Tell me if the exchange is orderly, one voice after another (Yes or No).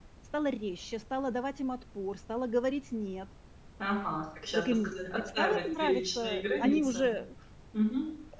No